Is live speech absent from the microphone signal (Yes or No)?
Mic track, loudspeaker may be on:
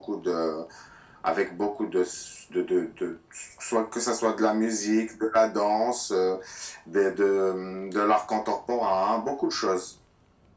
Yes